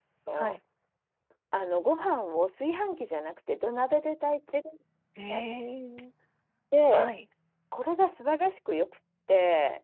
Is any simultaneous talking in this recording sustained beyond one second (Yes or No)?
No